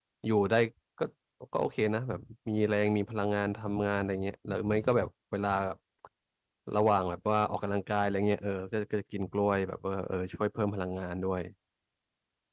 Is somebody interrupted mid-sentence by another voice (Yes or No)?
No